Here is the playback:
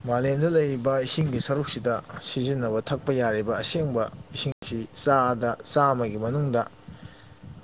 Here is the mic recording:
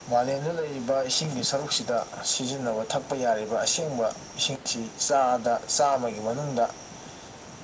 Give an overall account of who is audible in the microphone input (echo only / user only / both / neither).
echo only